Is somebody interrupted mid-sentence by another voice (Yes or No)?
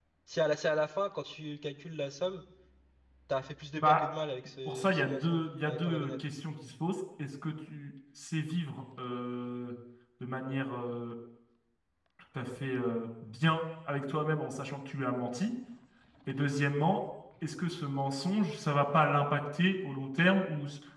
Yes